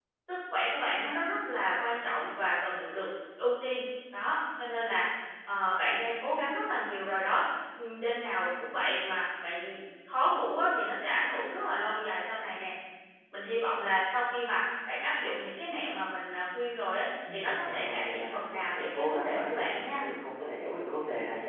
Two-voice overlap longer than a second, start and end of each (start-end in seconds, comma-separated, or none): 17.3-20.0